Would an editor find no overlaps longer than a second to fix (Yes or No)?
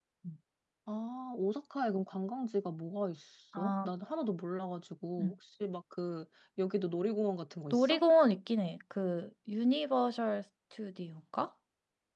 Yes